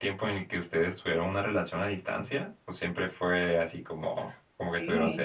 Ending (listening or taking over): taking over